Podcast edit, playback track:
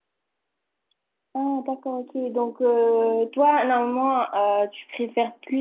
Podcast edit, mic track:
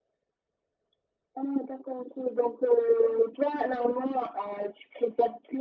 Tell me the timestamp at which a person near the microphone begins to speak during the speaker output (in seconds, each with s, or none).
none